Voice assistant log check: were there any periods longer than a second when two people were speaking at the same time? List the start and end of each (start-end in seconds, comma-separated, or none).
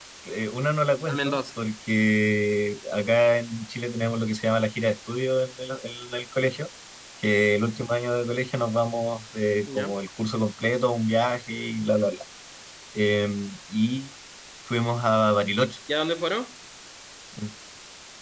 none